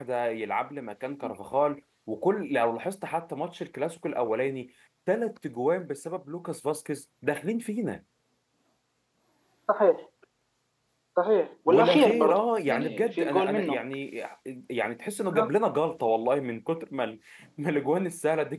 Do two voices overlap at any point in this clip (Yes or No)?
Yes